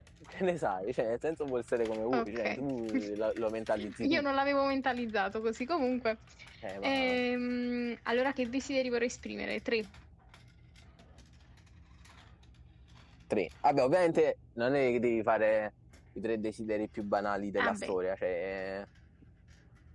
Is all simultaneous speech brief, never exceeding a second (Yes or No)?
Yes